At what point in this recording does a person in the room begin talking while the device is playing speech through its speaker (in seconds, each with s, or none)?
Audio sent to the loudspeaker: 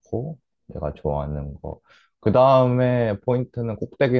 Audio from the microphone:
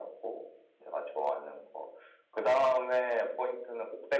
none